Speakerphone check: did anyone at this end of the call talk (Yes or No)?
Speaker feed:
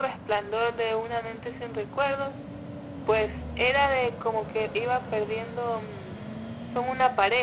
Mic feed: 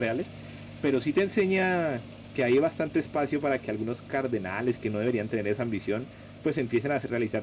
Yes